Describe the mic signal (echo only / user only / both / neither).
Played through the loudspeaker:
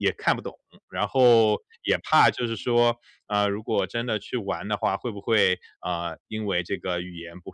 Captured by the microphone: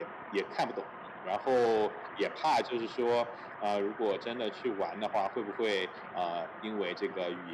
echo only